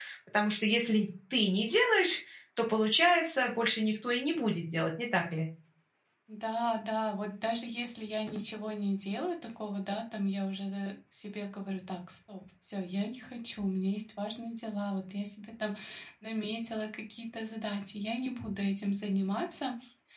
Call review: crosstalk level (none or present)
none